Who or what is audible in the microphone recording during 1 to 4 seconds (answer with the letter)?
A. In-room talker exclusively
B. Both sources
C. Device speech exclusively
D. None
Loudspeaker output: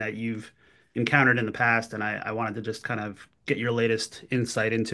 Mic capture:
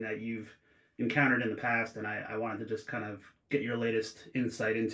C